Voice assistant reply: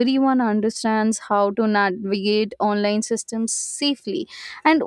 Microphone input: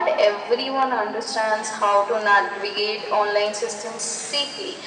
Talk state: echo only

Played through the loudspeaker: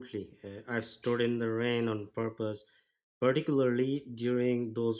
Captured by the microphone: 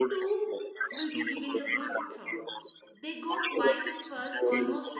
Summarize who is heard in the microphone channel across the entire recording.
both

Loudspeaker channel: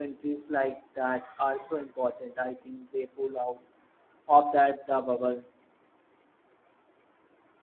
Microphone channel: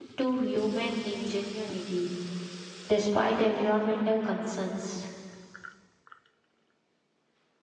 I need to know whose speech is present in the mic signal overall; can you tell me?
user only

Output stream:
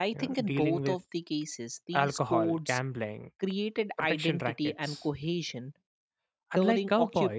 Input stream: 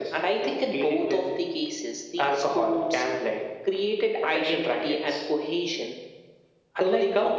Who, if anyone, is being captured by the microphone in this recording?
echo only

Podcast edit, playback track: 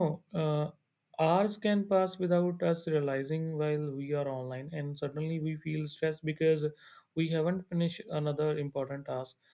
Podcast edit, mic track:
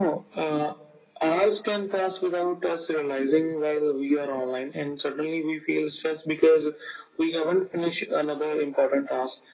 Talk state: echo only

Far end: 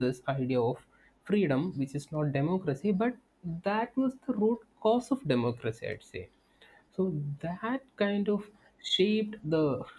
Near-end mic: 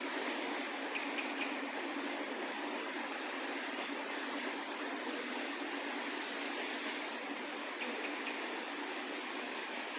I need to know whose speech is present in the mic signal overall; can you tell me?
neither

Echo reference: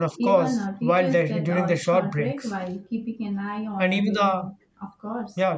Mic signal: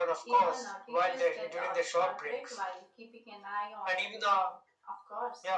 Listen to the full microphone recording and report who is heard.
echo only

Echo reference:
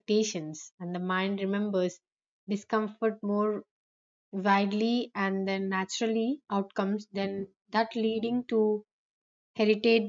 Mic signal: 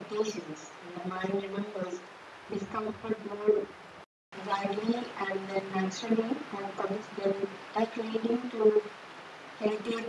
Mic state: echo only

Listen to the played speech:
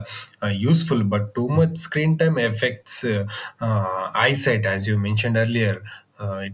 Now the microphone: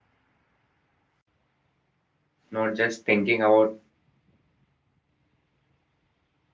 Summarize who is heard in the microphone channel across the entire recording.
user only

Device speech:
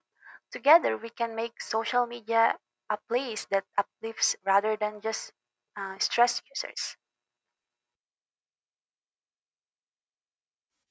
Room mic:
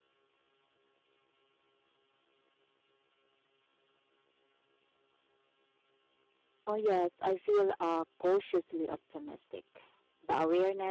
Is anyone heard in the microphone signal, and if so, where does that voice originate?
user only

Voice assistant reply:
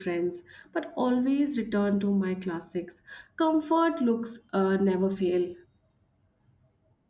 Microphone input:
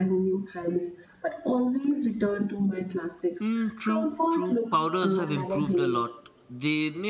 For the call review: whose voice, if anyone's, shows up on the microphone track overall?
both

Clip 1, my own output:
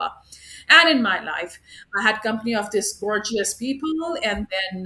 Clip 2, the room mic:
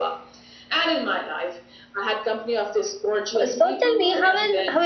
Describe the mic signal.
both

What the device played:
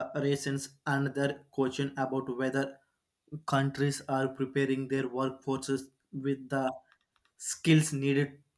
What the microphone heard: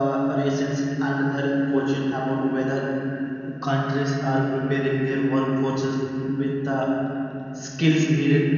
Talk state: echo only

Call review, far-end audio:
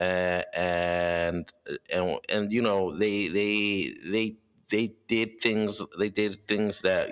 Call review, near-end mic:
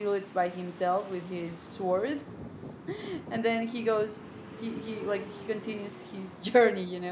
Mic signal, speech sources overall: user only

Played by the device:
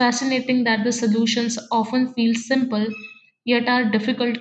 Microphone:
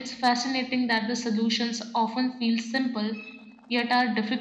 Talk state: echo only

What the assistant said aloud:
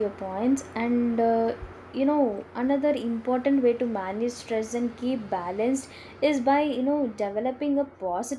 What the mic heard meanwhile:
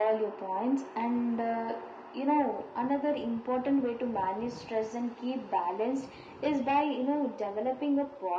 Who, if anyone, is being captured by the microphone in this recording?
echo only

